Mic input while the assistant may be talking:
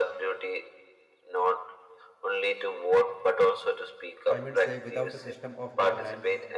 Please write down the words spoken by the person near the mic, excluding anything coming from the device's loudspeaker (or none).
i mean say without a system of governance